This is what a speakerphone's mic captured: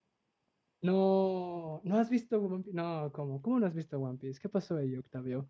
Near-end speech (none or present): present